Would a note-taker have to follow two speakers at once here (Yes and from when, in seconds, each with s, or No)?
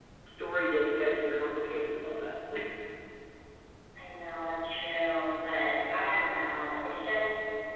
No